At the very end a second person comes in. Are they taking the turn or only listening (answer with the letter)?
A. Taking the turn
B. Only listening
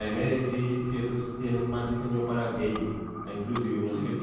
B